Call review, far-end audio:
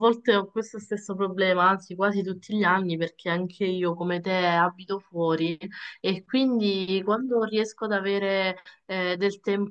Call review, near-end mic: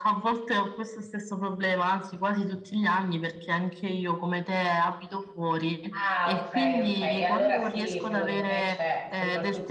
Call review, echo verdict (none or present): present